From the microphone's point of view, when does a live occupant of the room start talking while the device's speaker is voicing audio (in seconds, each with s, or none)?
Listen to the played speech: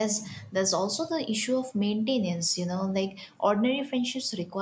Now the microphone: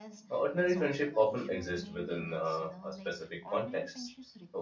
0.3 s